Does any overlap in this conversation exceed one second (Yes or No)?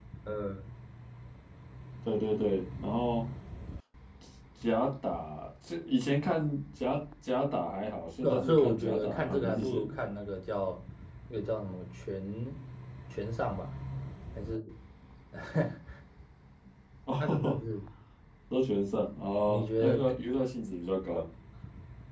Yes